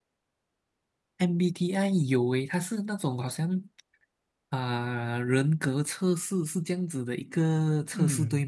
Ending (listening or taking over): taking over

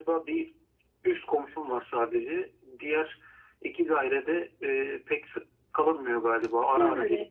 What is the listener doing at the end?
taking over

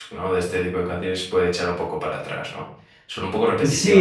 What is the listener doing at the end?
taking over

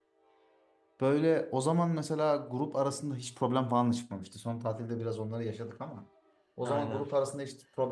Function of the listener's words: listening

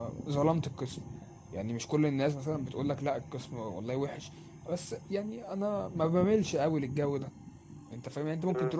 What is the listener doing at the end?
listening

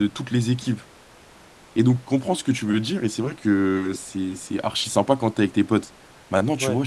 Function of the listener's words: listening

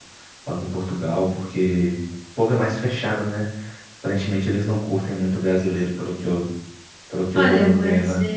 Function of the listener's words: taking over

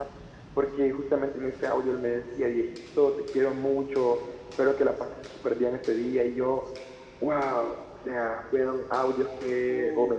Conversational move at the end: listening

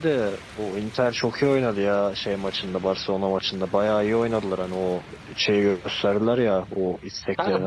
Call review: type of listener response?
taking over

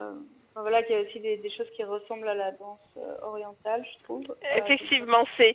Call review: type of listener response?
taking over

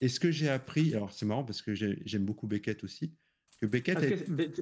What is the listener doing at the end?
taking over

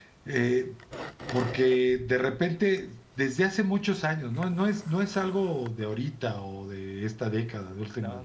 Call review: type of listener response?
listening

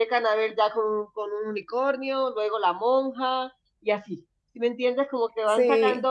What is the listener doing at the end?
listening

